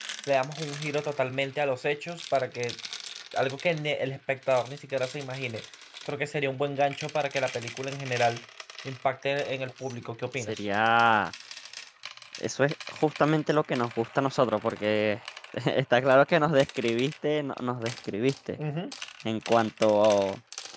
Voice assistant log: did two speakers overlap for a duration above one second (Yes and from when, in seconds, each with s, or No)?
No